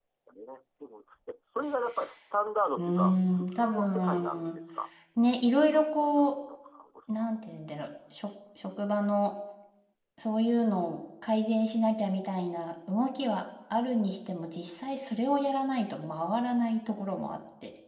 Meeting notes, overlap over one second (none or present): present